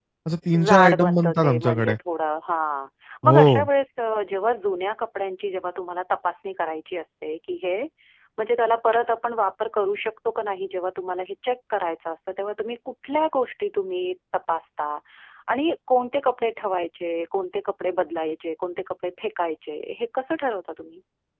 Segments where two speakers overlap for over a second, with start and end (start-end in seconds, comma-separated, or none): 0.6-2.0